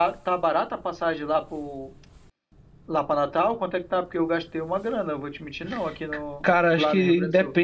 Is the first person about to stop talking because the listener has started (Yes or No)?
Yes